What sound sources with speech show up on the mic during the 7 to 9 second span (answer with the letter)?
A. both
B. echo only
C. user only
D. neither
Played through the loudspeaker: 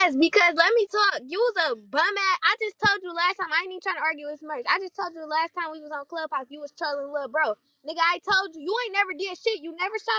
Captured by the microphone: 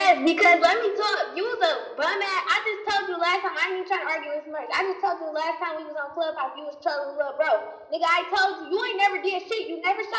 B